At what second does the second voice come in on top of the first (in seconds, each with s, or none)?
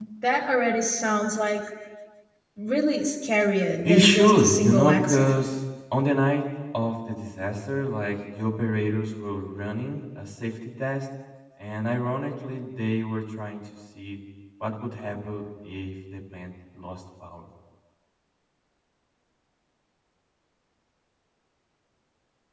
3.8 s